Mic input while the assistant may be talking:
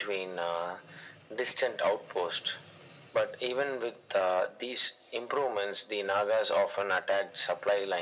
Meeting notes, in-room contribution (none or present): none